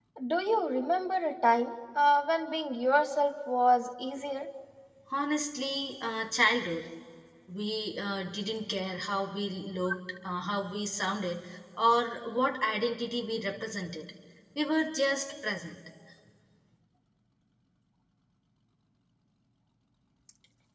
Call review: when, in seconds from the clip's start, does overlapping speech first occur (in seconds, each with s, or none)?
none